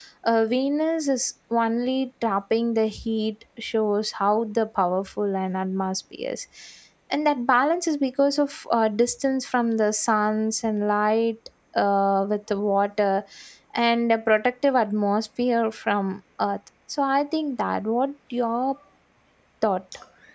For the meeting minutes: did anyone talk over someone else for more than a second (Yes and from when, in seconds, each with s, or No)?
No